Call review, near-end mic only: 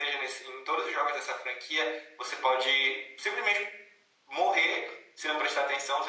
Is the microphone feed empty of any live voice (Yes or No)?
Yes